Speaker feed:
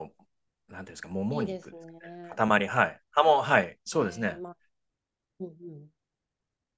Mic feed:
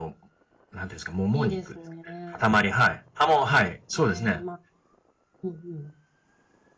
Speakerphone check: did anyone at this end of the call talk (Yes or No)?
No